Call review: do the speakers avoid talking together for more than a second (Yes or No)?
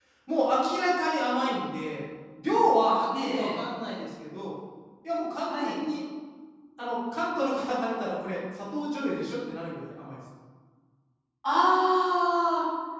Yes